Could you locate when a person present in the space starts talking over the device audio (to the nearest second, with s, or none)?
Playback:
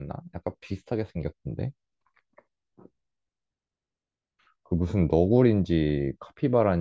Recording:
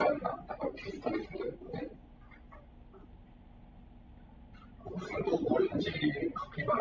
none